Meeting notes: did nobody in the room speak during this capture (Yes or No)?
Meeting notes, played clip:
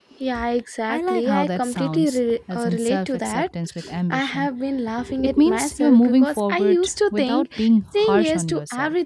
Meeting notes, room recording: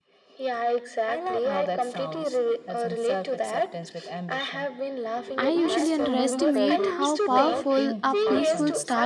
No